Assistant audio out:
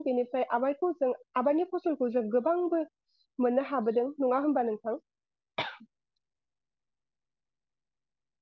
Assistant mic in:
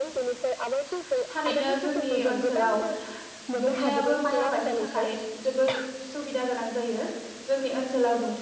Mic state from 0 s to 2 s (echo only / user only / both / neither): both